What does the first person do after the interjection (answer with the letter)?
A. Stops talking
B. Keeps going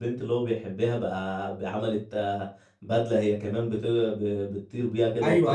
A